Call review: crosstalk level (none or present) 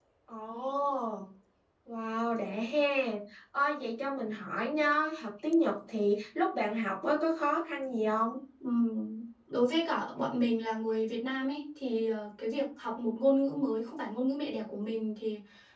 none